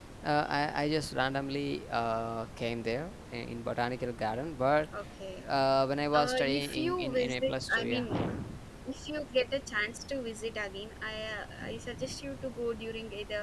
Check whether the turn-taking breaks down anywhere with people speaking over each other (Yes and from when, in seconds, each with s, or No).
Yes, from 6.1 s